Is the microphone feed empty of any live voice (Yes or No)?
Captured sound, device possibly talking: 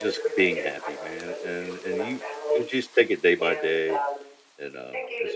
No